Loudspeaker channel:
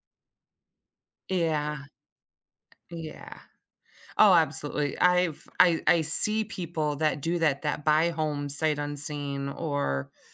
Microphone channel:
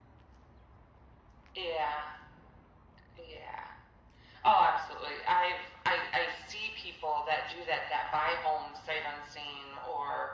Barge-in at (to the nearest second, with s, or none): none